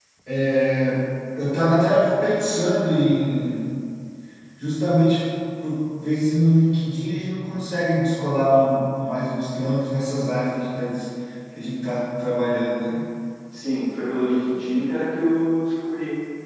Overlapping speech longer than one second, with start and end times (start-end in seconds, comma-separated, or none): none